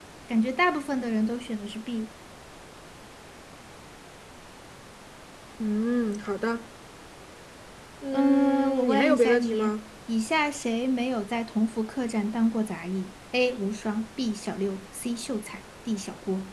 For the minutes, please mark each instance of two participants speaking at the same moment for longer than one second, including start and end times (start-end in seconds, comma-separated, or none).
8.1-9.7